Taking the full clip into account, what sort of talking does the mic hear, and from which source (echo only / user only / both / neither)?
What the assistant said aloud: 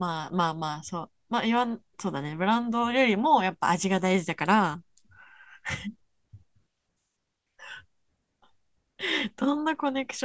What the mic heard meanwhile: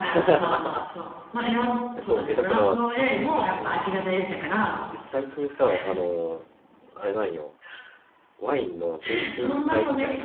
both